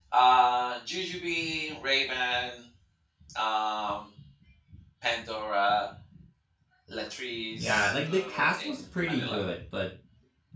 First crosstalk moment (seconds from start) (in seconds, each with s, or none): 7.5 s